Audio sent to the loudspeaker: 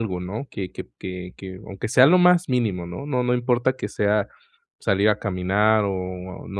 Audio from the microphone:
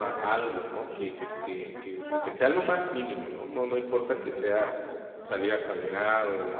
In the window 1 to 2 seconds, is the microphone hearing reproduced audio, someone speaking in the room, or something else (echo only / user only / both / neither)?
both